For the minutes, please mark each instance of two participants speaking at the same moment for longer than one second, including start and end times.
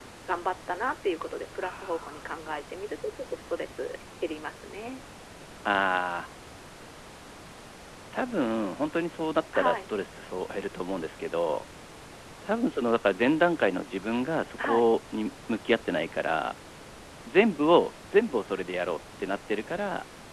none

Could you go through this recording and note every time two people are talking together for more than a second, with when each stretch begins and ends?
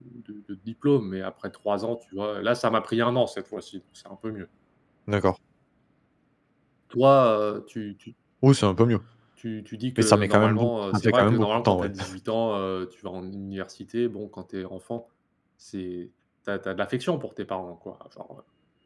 10.0-11.9

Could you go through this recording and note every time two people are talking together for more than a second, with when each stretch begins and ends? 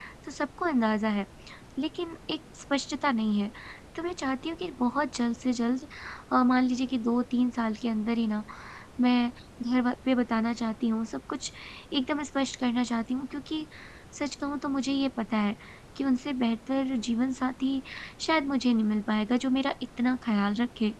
none

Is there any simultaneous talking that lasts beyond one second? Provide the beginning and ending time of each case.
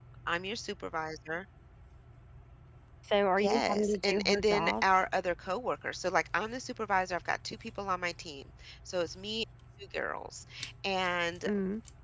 3.4-4.8

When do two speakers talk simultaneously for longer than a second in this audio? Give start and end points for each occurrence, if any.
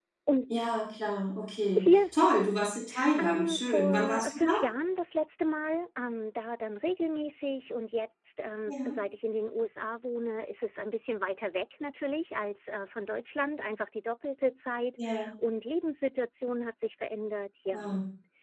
3.2-4.5

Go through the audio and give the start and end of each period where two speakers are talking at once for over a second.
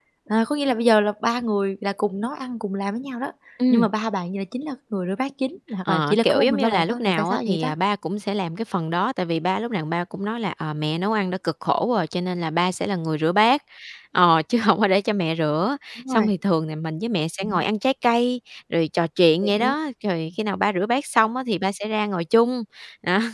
5.8-7.7

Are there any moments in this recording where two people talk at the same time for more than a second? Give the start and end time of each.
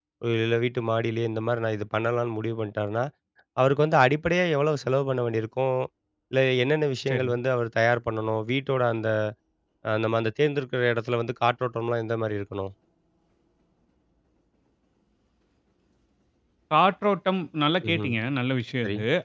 none

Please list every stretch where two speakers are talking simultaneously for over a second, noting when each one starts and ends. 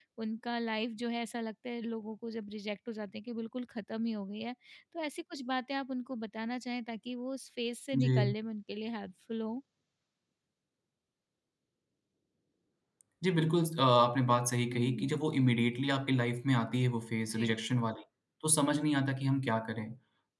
none

